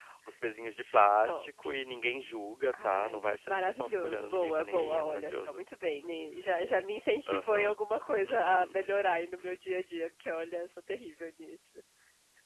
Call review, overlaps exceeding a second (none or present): present